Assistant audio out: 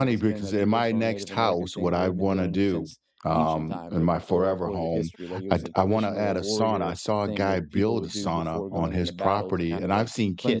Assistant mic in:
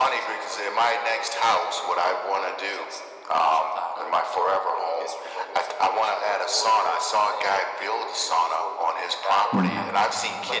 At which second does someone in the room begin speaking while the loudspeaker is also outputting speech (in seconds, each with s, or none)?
9.5 s